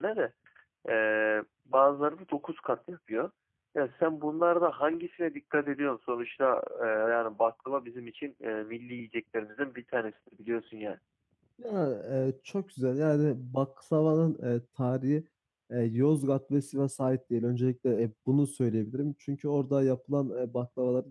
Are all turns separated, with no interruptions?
Yes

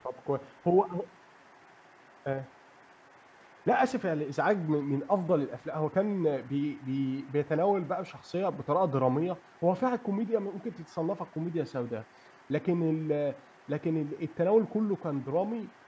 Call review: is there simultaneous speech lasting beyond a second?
No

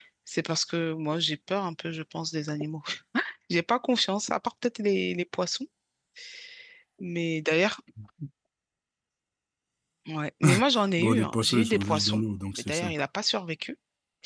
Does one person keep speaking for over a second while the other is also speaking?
Yes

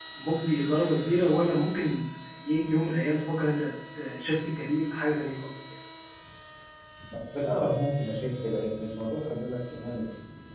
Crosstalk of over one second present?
No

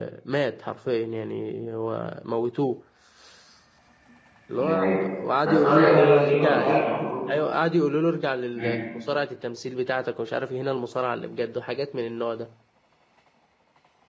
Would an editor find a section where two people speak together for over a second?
Yes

